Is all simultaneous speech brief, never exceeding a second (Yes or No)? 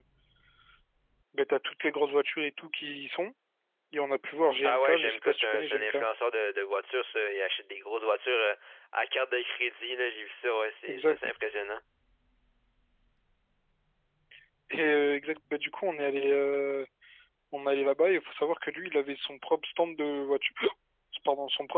No